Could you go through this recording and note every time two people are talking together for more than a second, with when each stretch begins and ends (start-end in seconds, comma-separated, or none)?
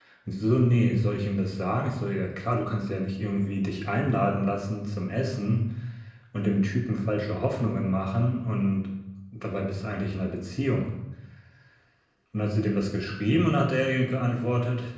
none